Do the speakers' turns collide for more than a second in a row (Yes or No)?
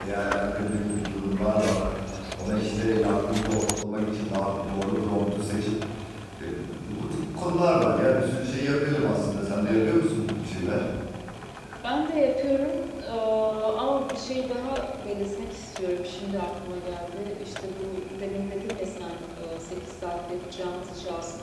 No